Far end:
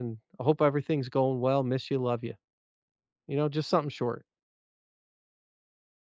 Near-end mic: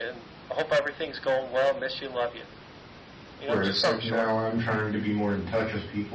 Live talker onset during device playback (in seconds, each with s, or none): 3.4 s